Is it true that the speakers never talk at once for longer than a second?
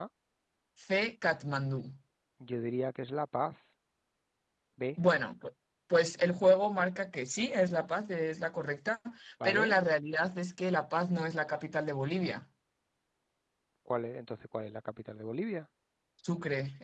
Yes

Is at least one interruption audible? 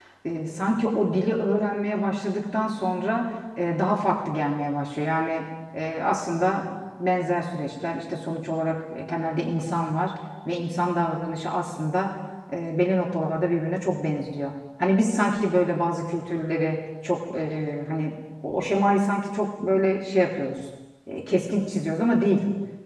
No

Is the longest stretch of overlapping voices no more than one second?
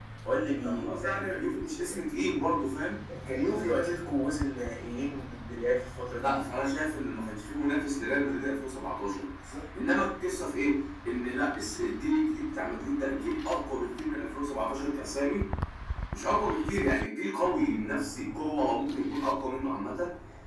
No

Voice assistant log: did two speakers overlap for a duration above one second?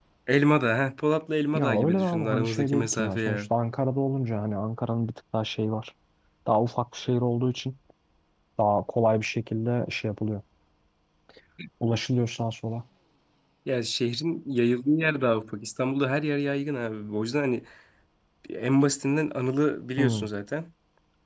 Yes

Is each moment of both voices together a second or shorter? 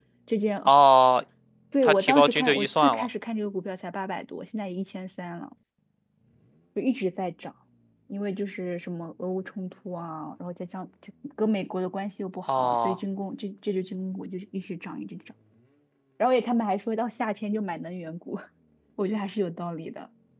No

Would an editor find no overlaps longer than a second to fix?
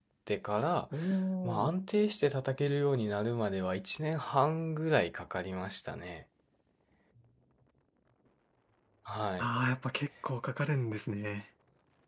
Yes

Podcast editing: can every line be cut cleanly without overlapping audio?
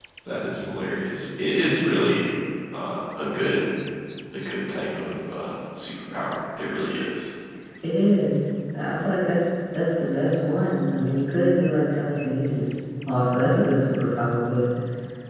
Yes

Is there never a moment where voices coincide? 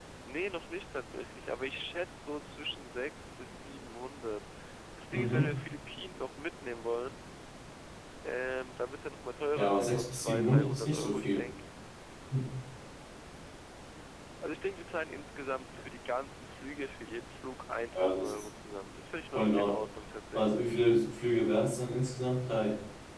No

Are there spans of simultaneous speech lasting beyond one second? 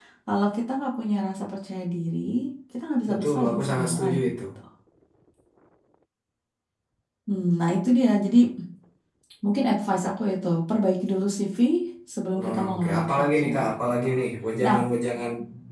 Yes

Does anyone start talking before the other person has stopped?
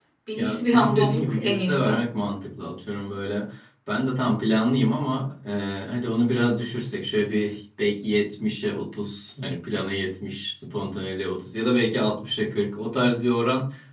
Yes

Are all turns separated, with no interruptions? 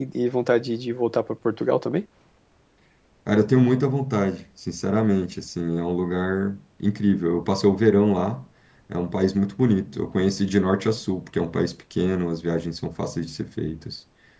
Yes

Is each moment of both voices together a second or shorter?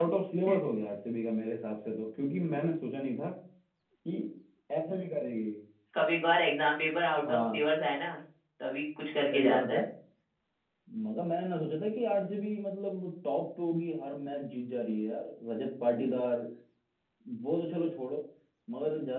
Yes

